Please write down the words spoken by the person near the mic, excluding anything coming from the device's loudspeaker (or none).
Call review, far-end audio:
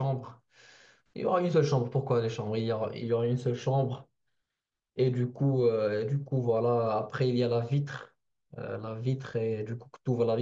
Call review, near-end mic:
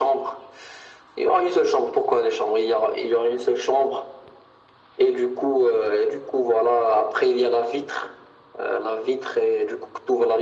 none